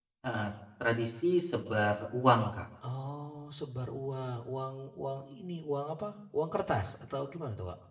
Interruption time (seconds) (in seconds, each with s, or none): none